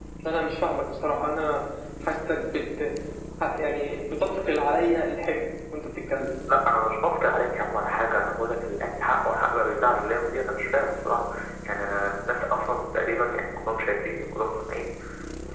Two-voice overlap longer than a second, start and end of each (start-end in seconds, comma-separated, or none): none